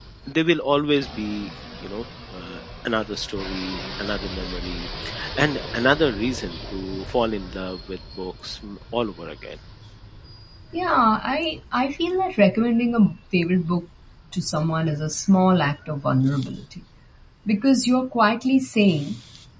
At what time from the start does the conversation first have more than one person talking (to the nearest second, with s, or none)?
none